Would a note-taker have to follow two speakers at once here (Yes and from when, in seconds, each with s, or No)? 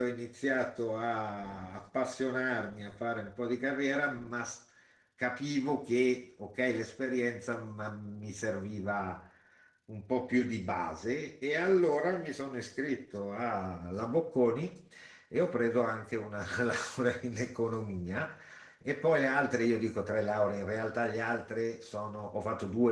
No